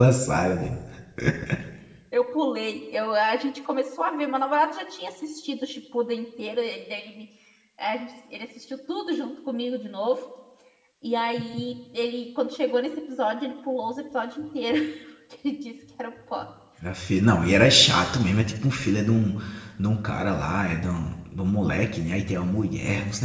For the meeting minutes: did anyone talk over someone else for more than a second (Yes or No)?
No